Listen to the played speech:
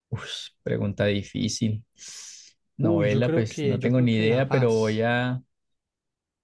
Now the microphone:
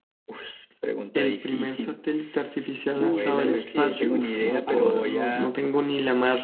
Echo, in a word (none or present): present